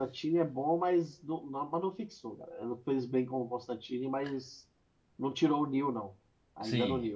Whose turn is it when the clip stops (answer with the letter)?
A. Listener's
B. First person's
A